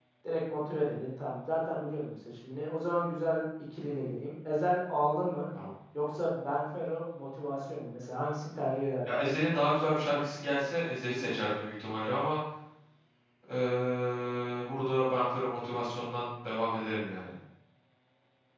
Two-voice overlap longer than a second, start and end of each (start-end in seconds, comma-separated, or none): none